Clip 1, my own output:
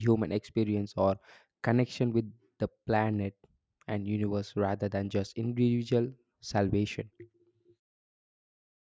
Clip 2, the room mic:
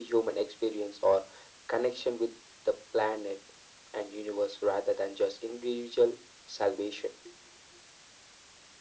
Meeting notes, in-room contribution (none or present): none